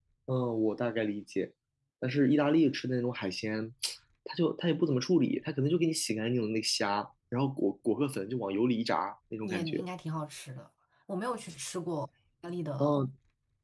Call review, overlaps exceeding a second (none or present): none